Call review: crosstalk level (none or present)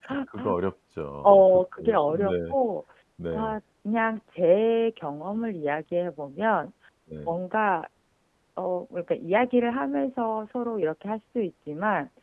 present